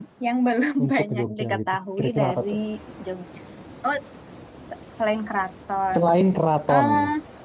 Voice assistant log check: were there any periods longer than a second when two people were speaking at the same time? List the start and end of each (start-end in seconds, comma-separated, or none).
0.8-2.5